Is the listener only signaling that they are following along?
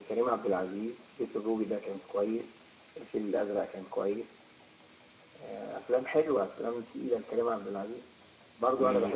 Yes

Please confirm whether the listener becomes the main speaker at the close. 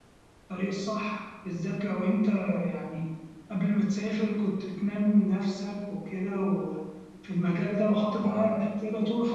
No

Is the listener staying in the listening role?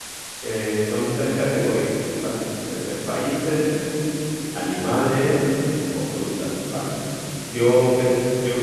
Yes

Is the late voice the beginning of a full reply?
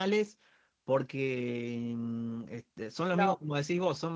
No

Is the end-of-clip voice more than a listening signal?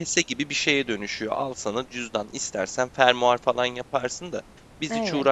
No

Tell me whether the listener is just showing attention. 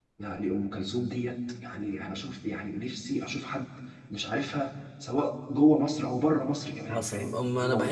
No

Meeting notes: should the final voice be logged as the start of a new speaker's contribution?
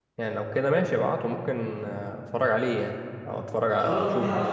Yes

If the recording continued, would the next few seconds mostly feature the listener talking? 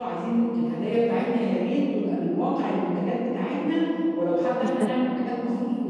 No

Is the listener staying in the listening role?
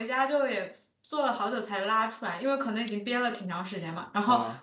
Yes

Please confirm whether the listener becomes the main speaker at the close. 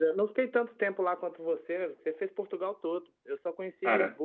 No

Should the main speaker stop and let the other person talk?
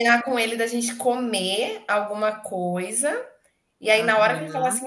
No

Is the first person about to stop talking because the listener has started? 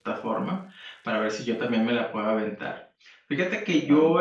No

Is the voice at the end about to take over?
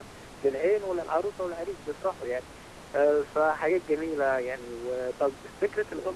No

